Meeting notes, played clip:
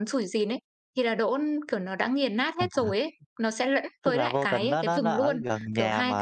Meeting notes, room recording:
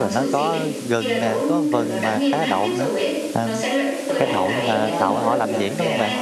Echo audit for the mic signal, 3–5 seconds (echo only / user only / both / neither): both